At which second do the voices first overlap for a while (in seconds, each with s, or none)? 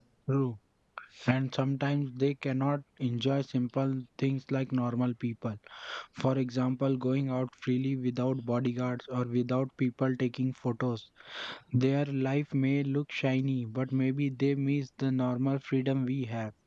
none